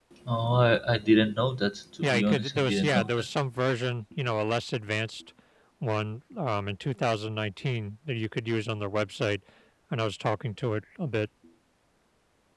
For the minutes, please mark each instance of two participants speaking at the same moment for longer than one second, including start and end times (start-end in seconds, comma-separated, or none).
2.0-3.3